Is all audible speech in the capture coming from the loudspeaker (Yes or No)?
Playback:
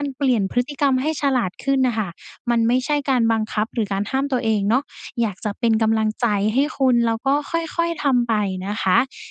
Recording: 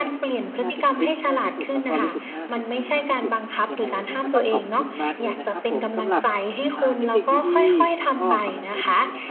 No